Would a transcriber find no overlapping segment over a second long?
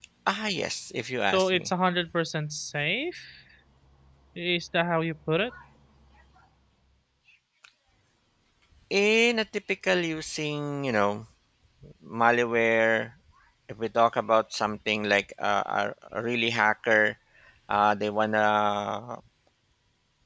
Yes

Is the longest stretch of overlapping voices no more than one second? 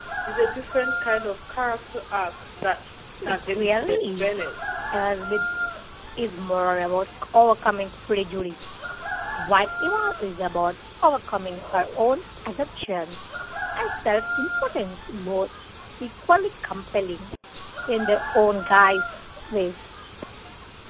No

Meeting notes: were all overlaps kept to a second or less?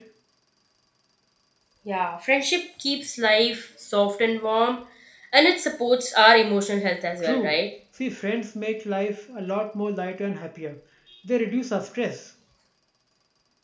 Yes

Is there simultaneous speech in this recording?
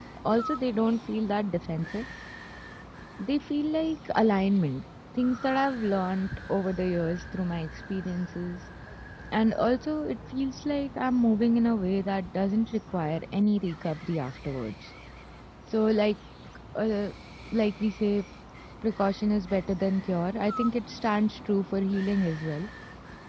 No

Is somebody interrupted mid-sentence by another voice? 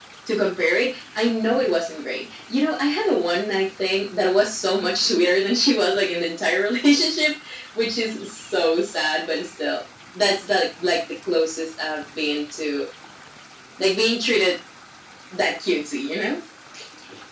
No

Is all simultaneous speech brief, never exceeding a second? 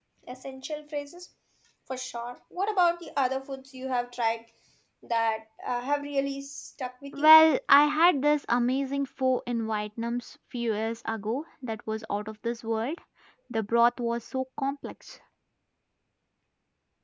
Yes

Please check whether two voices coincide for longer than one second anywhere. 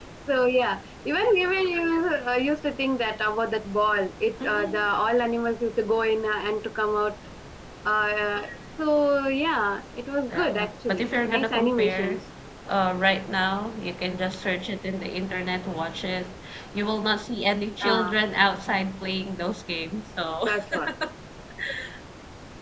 Yes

